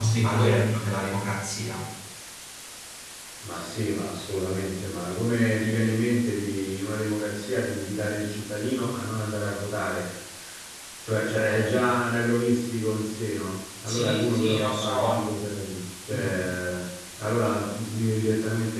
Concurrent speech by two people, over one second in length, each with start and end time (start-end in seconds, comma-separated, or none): 13.8-15.3